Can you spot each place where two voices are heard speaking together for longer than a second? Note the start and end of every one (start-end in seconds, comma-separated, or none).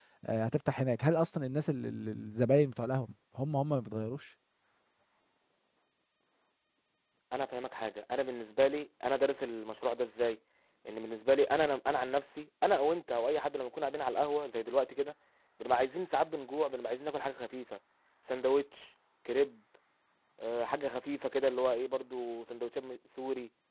none